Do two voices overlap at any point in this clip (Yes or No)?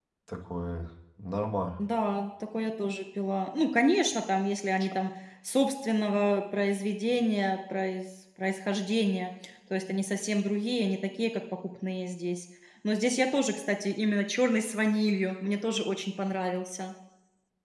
No